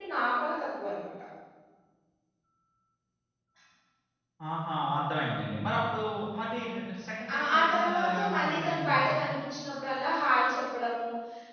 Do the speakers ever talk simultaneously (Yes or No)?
Yes